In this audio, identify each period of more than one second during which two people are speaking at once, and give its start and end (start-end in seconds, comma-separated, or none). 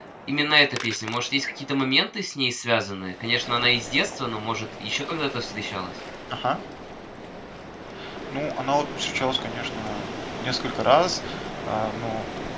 none